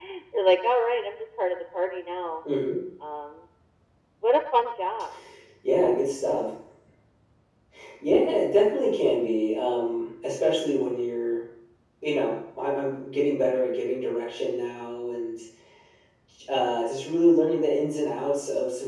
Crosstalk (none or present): none